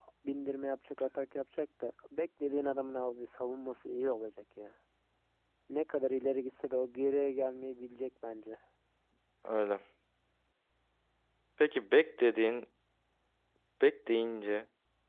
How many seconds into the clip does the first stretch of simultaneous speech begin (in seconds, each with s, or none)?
none